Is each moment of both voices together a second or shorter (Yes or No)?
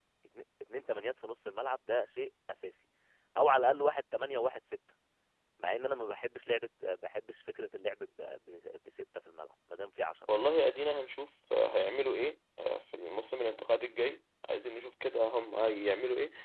Yes